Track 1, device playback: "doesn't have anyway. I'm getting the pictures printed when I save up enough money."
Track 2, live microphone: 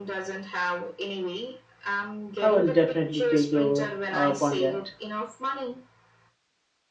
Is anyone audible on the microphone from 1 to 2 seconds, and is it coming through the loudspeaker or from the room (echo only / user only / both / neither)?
echo only